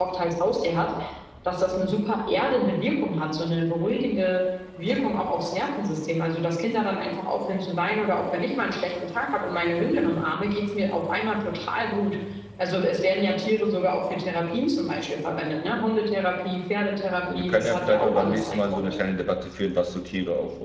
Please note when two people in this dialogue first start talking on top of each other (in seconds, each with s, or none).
17.3 s